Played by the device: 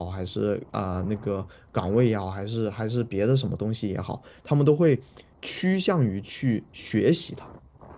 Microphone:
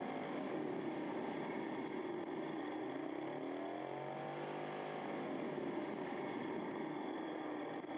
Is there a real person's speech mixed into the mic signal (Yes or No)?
No